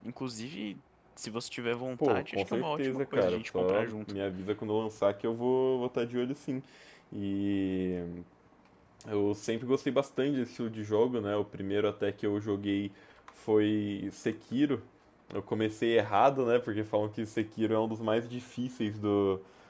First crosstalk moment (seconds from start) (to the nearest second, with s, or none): 2 s